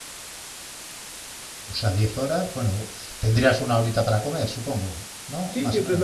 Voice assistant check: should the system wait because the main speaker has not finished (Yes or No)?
No